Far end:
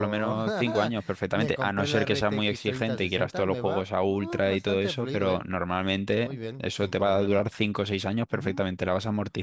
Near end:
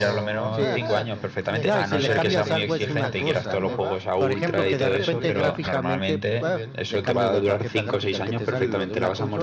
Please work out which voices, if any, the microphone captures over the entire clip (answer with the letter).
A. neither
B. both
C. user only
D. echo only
B